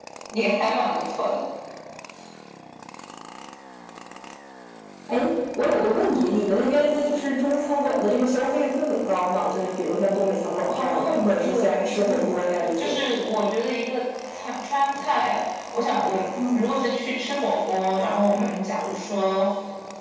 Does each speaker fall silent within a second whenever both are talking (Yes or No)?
No